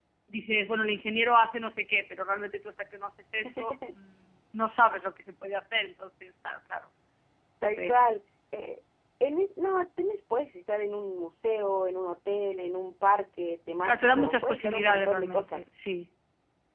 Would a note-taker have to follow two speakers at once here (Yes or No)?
Yes